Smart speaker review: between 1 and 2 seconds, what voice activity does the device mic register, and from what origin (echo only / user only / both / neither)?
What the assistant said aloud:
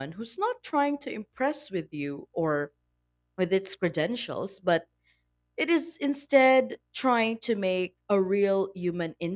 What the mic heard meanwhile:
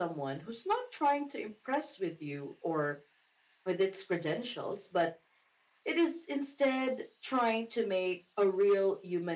echo only